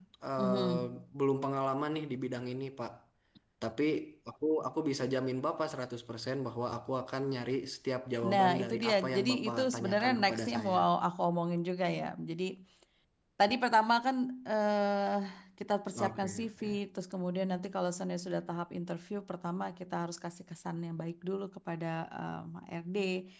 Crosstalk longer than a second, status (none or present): present